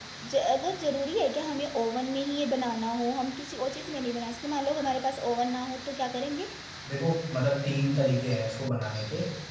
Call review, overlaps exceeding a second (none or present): none